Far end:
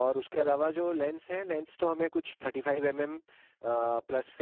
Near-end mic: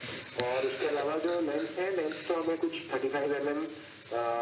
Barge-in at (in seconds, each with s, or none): none